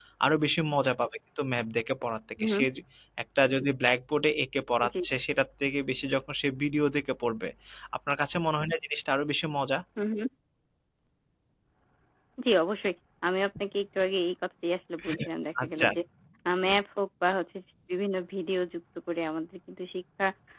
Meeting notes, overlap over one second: none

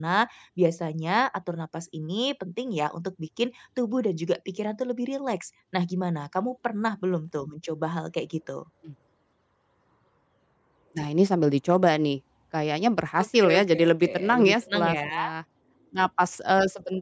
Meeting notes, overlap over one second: present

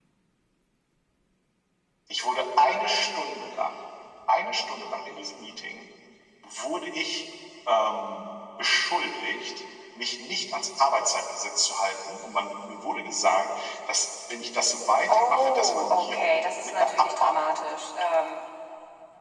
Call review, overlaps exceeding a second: present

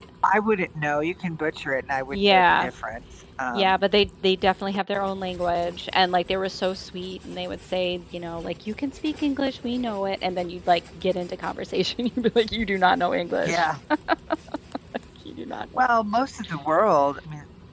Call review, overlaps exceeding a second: none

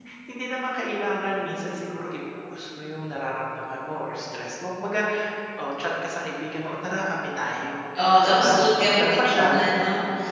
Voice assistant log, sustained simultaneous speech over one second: present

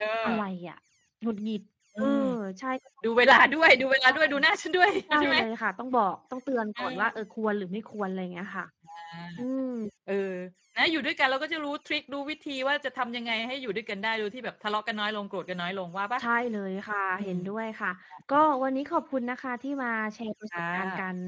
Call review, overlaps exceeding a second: none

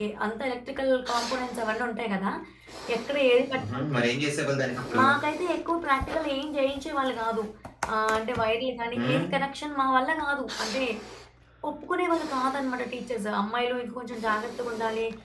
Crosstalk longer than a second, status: none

